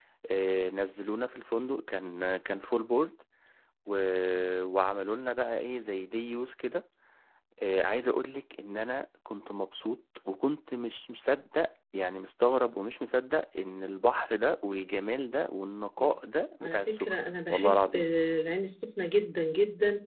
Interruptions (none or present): present